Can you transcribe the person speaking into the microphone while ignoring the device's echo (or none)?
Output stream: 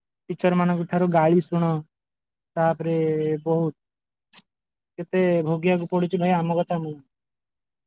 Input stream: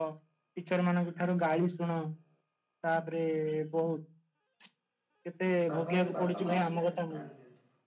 ବାପା ବାପା ମାସିକି ଆଣ ଆଣିଦିଅନ୍ତି।